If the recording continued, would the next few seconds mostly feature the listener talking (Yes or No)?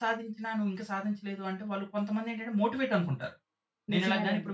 No